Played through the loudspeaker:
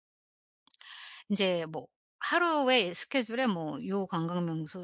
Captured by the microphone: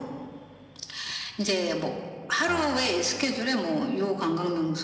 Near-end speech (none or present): present